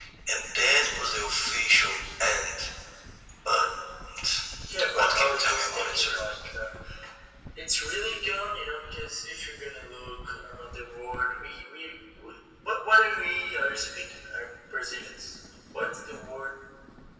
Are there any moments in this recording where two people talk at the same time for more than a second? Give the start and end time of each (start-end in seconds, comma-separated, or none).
4.9-6.2